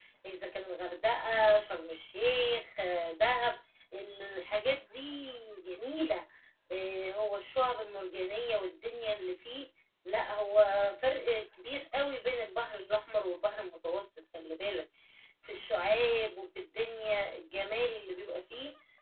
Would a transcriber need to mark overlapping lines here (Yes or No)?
No